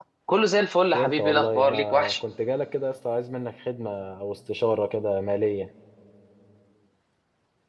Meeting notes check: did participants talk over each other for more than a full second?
Yes, from 0.9 s

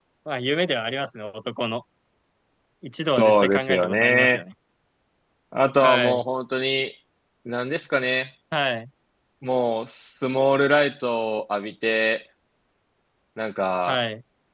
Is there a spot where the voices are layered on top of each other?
Yes, from 3.2 s

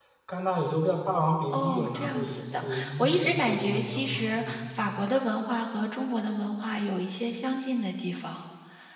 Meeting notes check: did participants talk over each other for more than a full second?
Yes, from 1.5 s

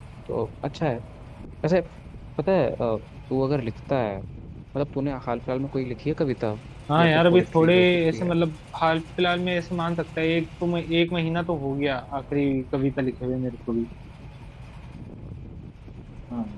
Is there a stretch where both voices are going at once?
Yes, from 7.0 s

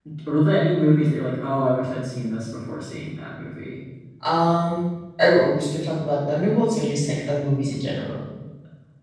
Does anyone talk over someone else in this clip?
No

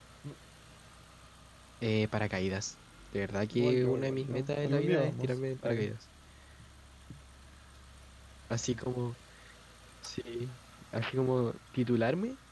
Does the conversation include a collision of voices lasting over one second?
Yes, from 3.5 s

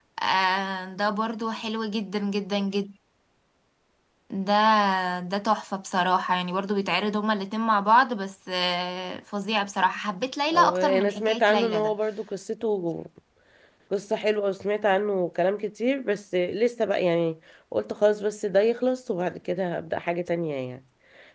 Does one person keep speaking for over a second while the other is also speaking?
Yes, from 10.5 s

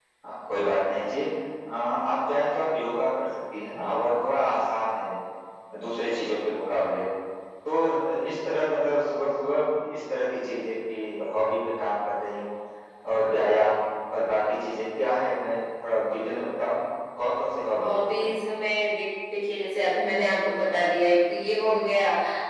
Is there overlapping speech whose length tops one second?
No

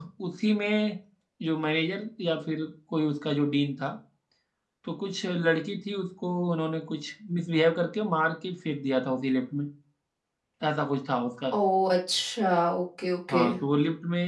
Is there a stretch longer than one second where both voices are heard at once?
No

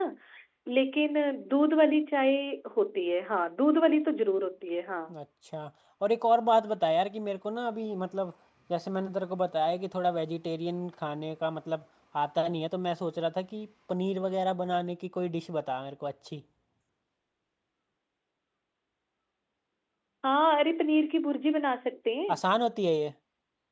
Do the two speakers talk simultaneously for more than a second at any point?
No

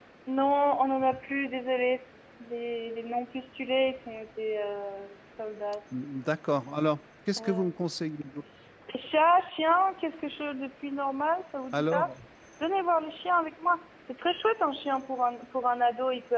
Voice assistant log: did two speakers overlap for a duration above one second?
No

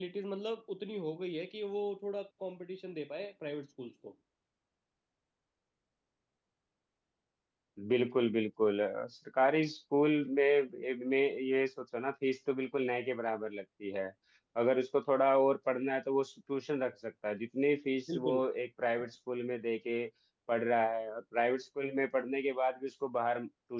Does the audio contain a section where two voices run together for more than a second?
No

